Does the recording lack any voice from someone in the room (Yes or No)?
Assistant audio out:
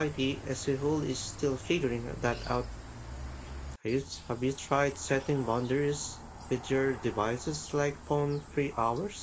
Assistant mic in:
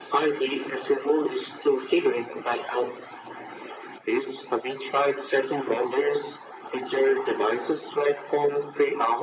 Yes